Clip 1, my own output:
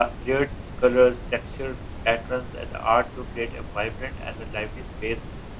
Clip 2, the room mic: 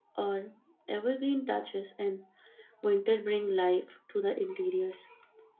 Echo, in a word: none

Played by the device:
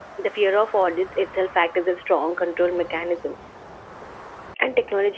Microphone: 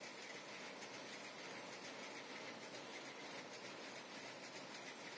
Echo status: none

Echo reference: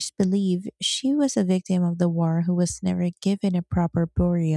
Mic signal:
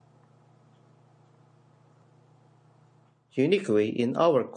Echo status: none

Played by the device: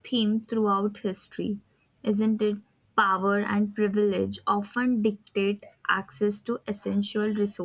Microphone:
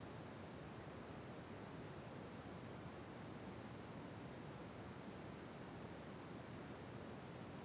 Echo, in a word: none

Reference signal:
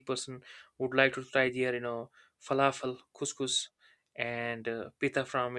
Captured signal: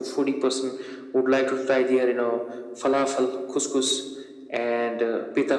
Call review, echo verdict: present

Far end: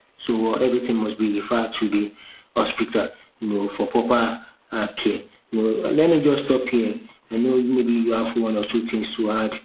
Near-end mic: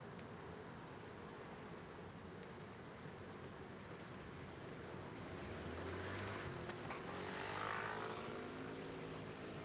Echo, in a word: none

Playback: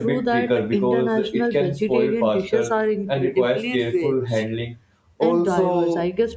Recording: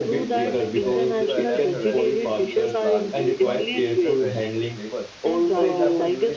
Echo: present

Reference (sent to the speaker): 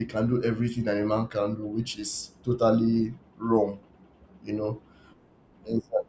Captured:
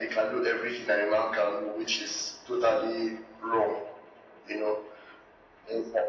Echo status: present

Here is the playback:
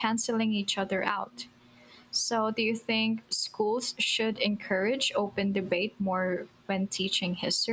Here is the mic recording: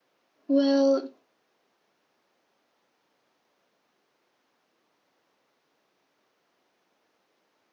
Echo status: none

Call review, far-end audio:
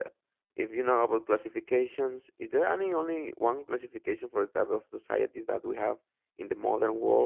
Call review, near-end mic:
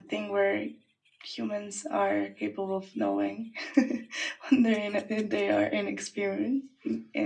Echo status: none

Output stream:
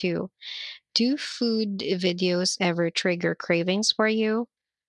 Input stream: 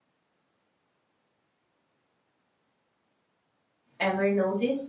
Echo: none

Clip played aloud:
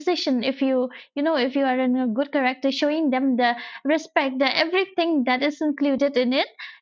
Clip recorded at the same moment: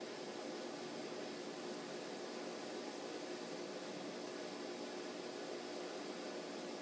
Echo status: none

